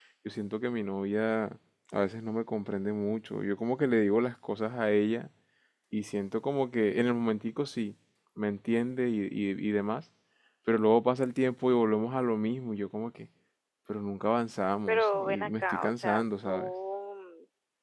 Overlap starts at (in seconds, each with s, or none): 14.9 s